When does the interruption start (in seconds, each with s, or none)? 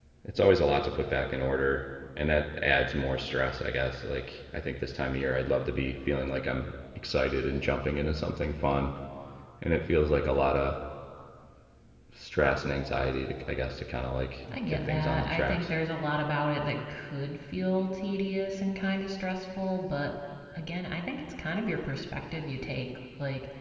14.5 s